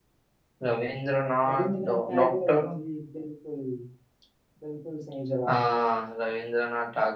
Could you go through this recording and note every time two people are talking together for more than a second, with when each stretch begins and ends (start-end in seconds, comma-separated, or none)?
1.4-2.7